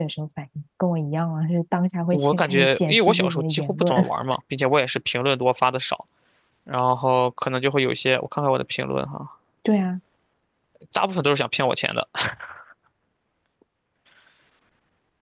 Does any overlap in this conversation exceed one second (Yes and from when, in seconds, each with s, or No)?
Yes, from 2.1 s